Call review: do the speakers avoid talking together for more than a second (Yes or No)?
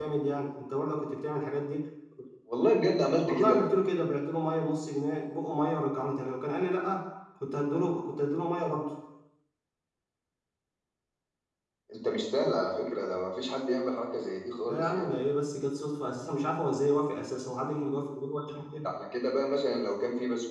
Yes